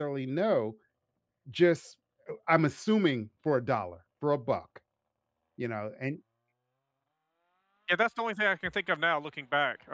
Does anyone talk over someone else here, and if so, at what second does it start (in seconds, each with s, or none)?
none